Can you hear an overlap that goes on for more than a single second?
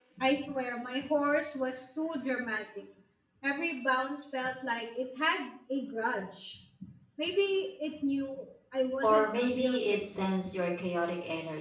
Yes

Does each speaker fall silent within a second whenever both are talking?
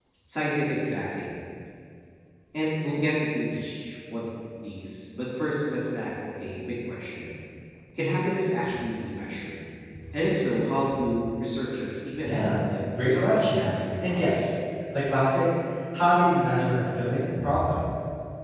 No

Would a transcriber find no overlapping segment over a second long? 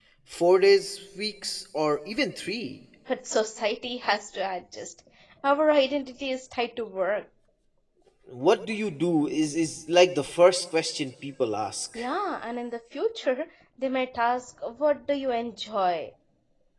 Yes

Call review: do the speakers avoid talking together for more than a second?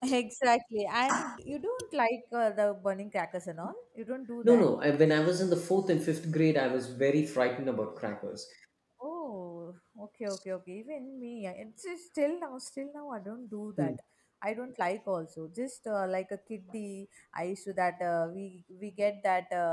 Yes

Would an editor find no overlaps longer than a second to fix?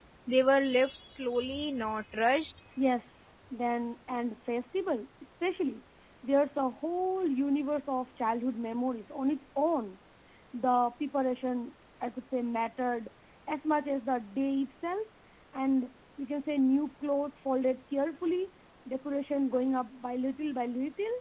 Yes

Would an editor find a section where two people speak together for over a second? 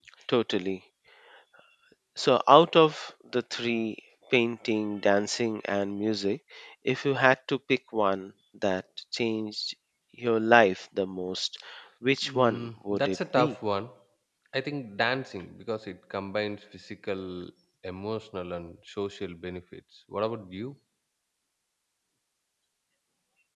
Yes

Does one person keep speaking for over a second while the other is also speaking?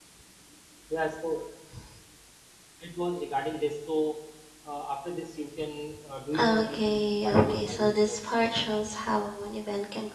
Yes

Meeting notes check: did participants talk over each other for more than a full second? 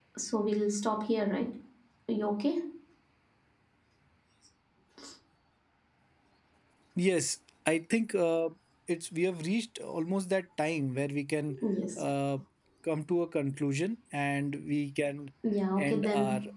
No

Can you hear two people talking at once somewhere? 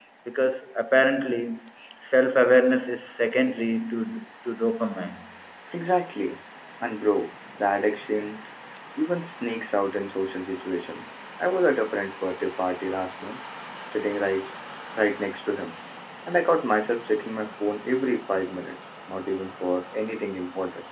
No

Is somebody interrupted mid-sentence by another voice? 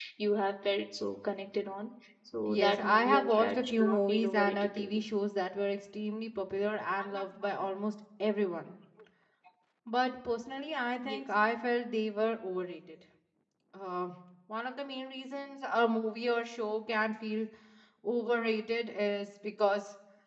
Yes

